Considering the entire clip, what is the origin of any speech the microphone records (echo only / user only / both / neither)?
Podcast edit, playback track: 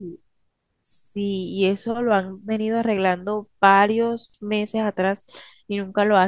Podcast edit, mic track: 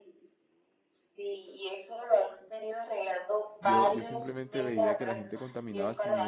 both